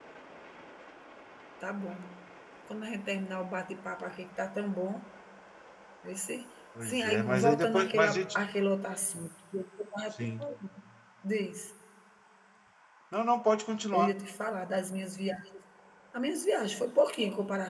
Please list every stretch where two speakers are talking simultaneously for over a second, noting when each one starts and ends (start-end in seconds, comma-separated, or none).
6.8-8.2